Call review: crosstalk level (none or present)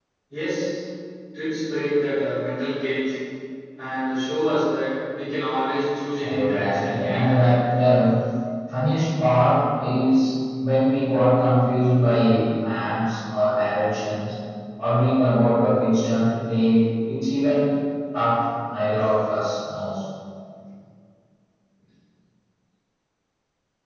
present